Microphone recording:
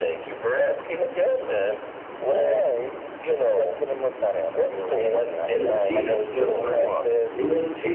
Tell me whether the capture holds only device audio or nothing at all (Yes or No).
No